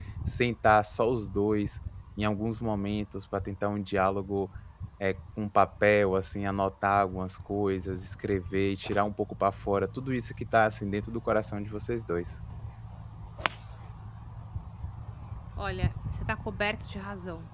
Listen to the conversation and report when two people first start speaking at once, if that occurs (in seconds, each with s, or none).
none